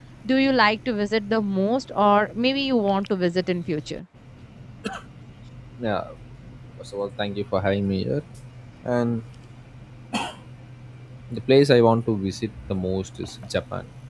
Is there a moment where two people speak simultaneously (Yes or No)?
No